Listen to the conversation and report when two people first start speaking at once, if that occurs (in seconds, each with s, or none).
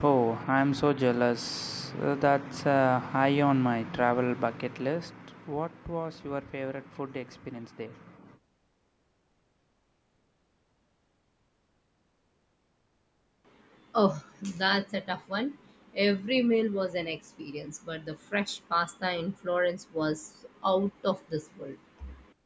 none